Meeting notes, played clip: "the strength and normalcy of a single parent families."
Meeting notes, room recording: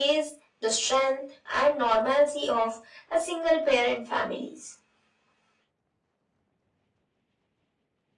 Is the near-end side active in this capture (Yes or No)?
No